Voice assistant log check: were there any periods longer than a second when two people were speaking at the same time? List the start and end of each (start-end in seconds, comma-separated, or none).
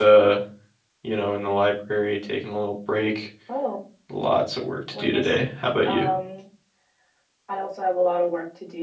none